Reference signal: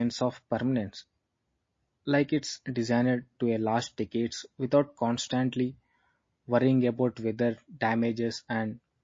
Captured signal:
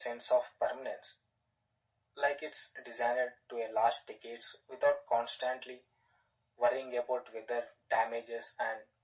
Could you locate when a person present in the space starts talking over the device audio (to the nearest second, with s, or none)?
none